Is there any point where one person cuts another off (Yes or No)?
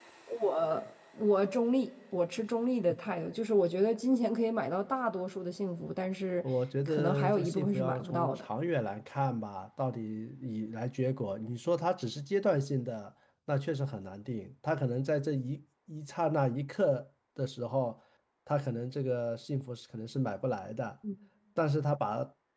Yes